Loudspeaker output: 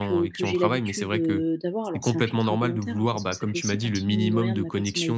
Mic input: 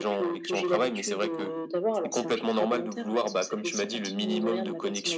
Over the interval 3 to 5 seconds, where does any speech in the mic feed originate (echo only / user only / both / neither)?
echo only